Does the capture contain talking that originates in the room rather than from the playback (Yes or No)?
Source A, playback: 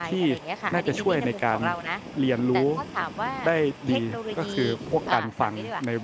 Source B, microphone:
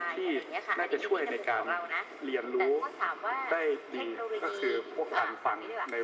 No